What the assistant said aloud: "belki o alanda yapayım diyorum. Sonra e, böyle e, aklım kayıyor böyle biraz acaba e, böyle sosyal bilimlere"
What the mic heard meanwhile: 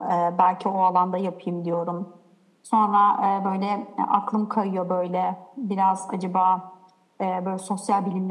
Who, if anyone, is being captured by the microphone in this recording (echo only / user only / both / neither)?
echo only